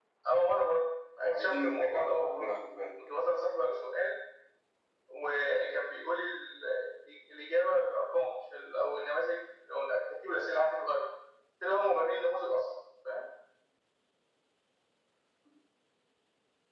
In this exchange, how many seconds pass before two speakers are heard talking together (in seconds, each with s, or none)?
1.2 s